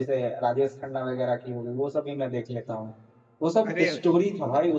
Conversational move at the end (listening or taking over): listening